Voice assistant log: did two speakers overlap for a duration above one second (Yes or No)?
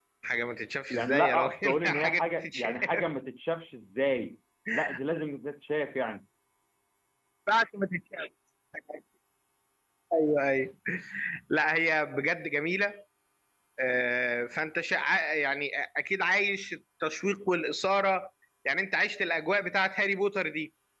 Yes